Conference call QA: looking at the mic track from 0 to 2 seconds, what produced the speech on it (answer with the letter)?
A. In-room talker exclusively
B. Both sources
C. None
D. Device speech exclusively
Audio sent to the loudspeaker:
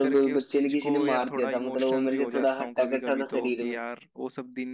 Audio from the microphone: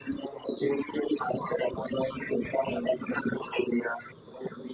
D